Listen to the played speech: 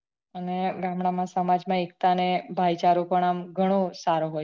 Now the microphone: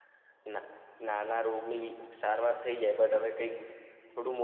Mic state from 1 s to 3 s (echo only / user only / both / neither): user only